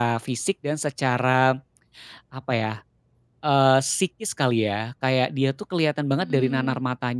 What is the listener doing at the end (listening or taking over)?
listening